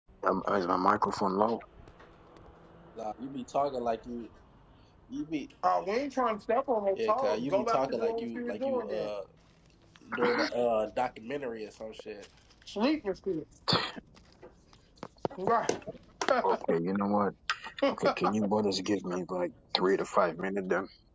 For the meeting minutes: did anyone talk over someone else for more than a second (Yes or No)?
Yes